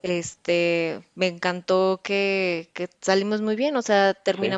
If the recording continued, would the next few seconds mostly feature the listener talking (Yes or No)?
No